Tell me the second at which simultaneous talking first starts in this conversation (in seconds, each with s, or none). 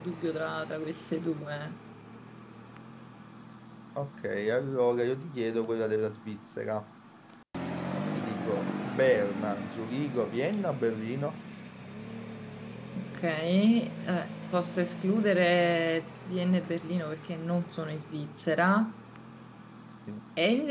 none